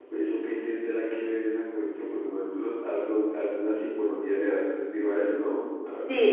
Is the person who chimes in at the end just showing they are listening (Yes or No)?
No